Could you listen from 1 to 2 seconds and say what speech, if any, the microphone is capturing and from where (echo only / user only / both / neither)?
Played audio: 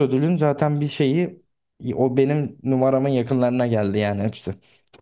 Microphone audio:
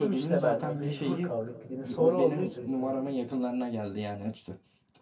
both